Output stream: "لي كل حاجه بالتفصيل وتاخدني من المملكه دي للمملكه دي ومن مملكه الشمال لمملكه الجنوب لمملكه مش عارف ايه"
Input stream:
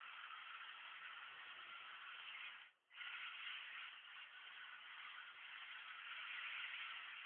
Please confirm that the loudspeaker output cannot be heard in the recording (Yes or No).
Yes